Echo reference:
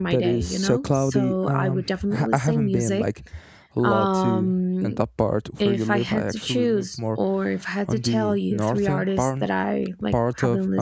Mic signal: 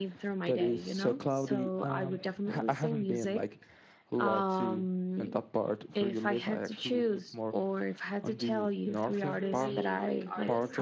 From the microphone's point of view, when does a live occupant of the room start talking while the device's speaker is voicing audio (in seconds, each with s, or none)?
9.1 s